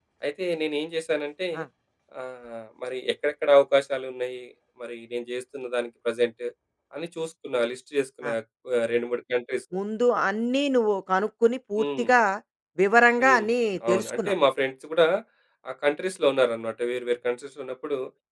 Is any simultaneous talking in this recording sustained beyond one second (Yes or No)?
No